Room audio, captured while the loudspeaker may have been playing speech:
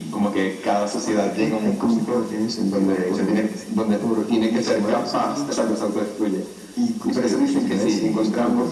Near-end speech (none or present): none